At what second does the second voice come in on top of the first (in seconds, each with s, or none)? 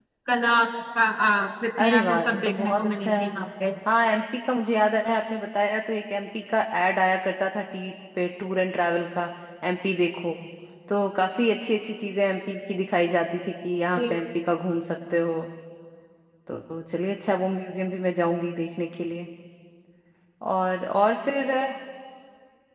1.8 s